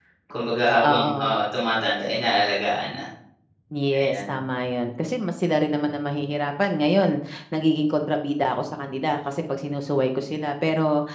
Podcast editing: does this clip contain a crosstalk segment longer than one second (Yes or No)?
No